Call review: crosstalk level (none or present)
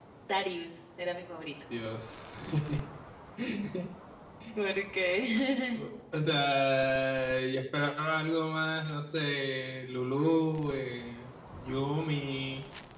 none